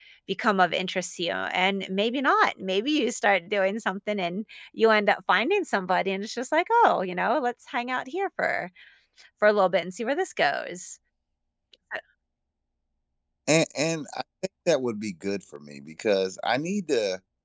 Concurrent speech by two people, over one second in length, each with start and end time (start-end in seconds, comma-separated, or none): none